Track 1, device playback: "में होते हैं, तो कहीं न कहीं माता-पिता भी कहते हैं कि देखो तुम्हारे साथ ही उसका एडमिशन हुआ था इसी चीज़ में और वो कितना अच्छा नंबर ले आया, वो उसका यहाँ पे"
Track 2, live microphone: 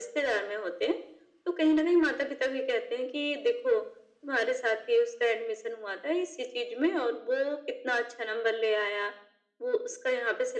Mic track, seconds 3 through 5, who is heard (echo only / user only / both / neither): echo only